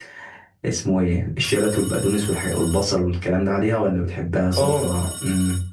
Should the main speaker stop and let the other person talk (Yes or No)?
No